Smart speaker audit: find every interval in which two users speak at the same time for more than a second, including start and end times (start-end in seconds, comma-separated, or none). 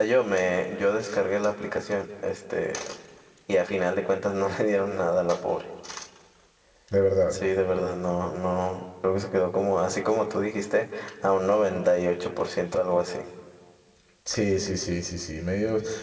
none